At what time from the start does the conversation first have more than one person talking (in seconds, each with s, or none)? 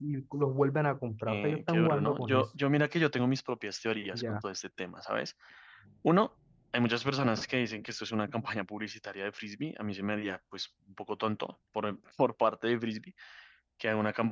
1.3 s